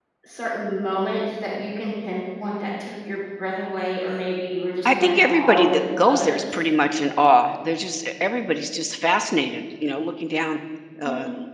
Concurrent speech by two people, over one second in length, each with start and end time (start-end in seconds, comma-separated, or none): 4.8-6.6